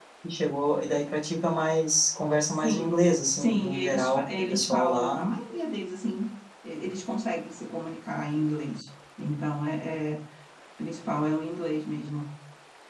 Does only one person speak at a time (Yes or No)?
No